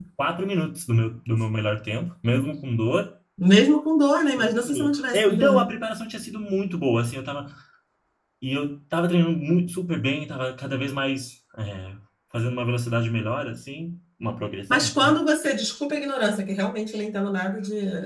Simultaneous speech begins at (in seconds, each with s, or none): 4.4 s